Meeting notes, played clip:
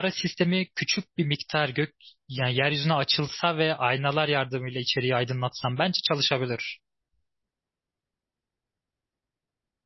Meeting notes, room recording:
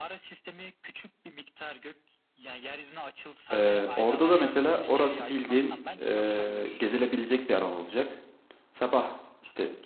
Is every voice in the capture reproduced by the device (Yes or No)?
No